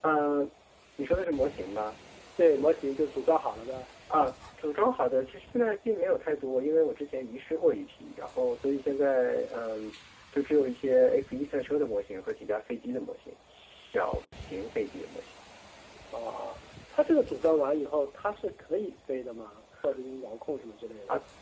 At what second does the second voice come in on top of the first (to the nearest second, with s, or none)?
none